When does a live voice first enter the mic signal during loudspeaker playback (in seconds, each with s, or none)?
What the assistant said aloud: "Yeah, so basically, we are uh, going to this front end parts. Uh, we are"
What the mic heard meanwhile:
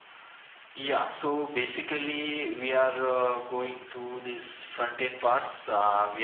none